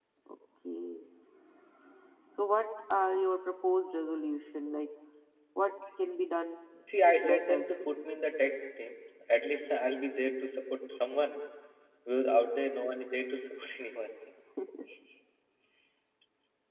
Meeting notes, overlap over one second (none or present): none